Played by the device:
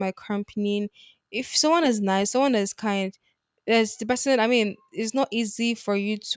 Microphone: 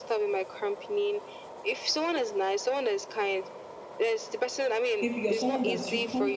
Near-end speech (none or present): present